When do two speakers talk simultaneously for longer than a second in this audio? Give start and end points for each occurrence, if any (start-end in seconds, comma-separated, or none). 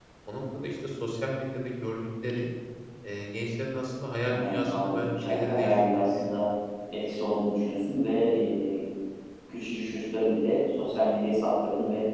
4.3-6.4